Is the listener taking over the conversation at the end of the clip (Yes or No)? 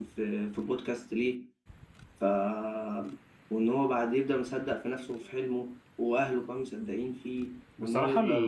Yes